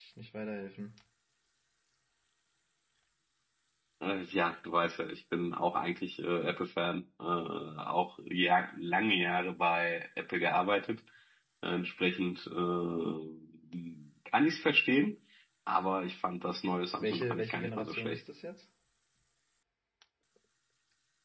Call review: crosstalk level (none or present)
present